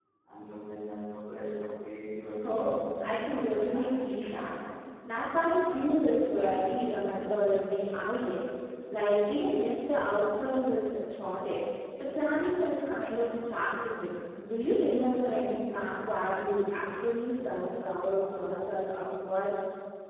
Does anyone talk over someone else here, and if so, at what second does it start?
2 s

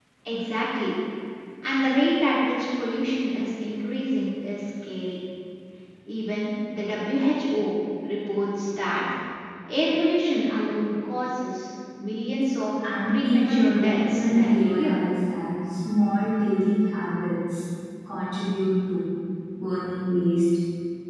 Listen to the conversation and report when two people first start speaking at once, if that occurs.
13 s

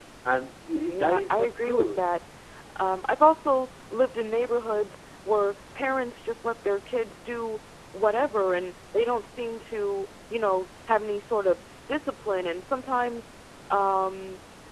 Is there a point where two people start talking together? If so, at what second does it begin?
1 s

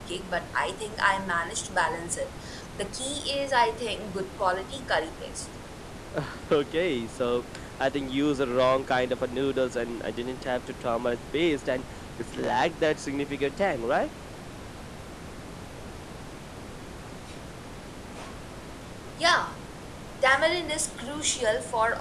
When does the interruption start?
none

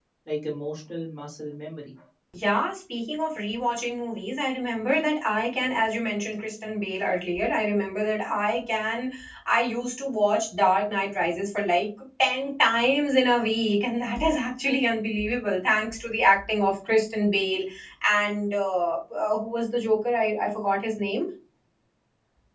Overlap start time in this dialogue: none

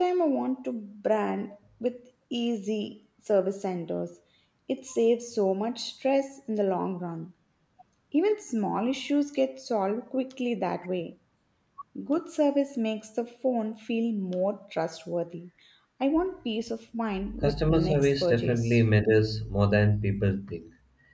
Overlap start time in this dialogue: 17 s

